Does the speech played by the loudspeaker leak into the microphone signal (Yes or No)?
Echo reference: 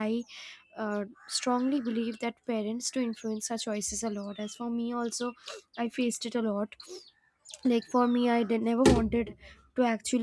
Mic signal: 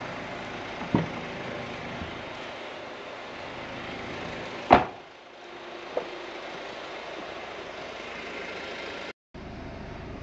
No